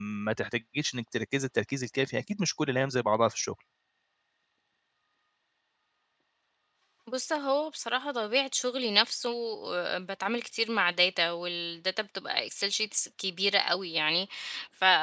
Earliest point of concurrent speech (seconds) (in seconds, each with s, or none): none